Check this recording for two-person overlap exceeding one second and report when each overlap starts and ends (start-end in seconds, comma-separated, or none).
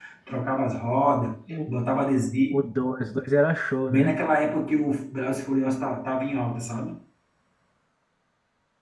none